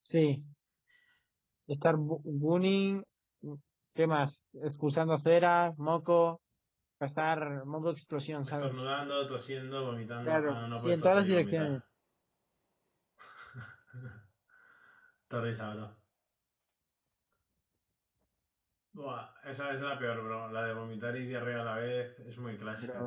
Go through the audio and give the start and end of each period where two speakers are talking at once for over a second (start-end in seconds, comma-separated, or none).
10.2-11.8